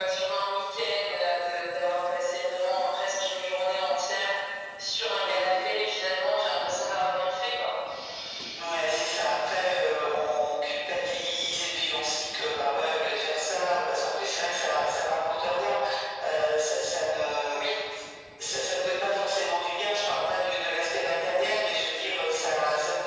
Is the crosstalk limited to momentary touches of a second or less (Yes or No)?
Yes